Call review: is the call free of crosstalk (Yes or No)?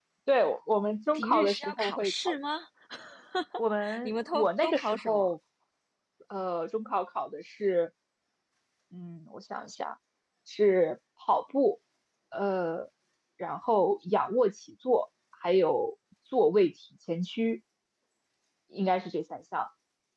No